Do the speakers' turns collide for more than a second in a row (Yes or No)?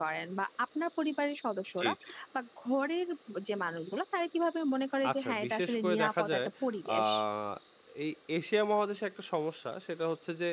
Yes